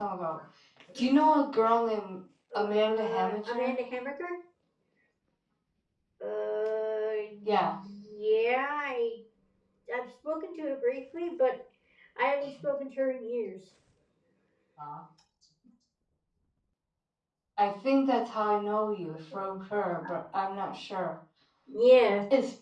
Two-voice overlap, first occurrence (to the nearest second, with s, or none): 3 s